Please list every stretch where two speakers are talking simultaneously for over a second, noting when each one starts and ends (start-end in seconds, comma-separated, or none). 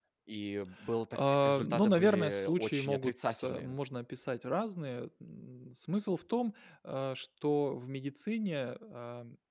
1.1-3.8